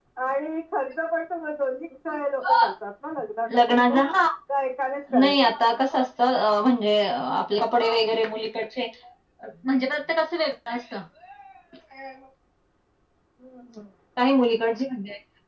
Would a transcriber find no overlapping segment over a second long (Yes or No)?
Yes